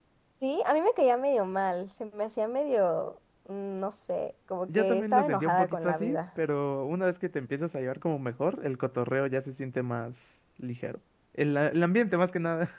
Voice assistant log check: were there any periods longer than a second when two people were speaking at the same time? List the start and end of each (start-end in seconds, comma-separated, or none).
4.7-6.2